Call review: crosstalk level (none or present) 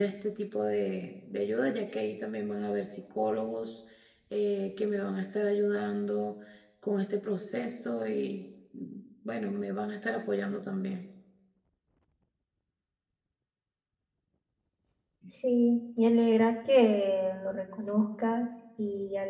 none